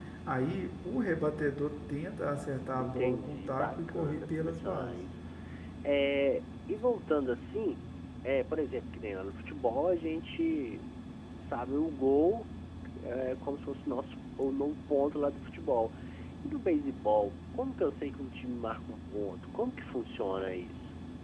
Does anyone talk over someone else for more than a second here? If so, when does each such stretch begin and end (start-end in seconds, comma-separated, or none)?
2.8-5.0